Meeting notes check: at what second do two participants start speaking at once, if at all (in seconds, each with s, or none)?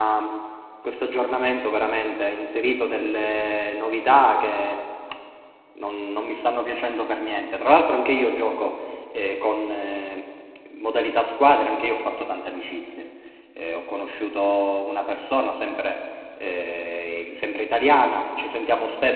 none